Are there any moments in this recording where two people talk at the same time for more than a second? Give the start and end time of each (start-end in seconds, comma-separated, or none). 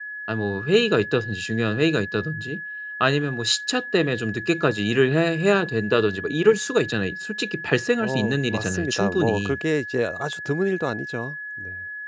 8.0-9.6